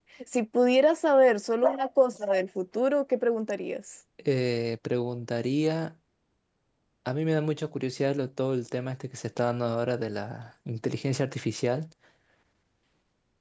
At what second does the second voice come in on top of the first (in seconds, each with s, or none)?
none